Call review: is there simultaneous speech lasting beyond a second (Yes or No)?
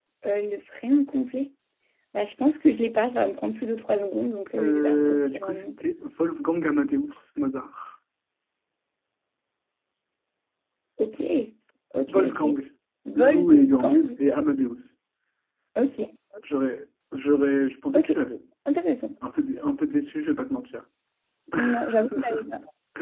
Yes